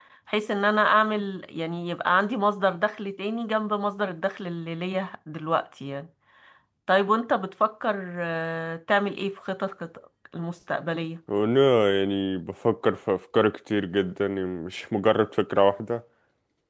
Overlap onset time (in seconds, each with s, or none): none